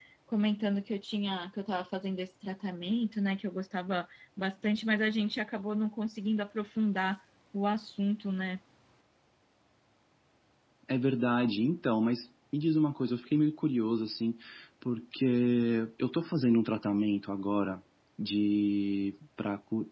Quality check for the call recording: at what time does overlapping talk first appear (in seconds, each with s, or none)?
none